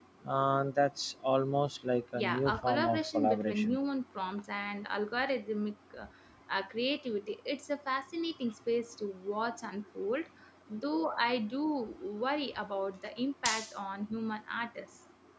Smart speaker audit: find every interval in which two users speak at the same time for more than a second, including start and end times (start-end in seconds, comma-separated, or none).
2.1-3.8